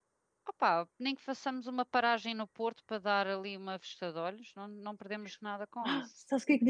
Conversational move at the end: taking over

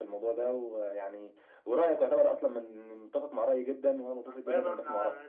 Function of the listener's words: taking over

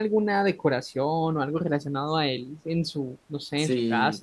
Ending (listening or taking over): taking over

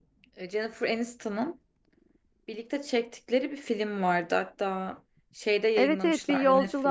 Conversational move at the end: taking over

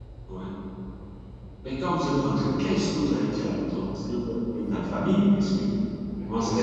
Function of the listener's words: taking over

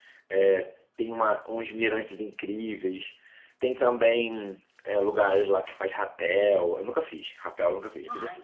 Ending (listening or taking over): taking over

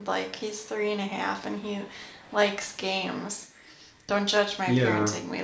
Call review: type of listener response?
listening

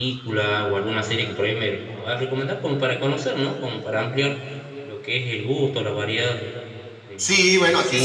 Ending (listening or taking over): taking over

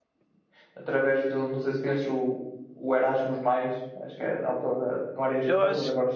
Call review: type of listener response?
taking over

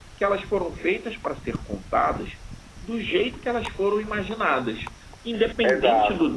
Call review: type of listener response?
listening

